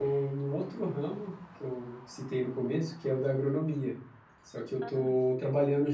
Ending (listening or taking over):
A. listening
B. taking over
A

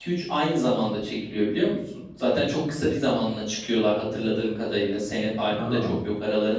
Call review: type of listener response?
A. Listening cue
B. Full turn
A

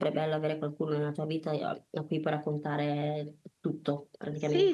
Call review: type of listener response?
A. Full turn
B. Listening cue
A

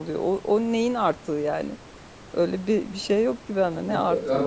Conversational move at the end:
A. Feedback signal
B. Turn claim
B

